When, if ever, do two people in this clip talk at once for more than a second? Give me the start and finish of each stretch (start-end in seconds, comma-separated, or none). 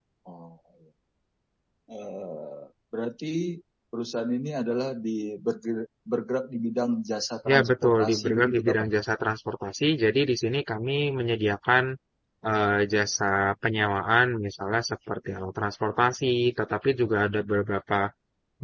7.5-8.9